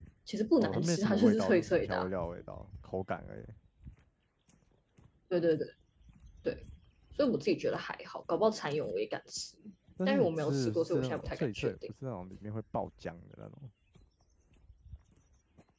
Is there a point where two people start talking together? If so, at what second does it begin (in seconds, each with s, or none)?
0.6 s